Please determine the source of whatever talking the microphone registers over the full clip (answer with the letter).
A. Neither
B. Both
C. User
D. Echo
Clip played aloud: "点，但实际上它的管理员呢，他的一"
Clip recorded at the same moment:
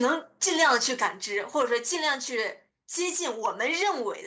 C